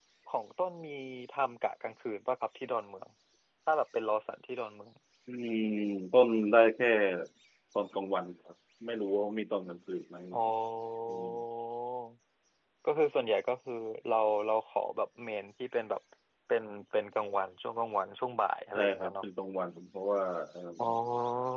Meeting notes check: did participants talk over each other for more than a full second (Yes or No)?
No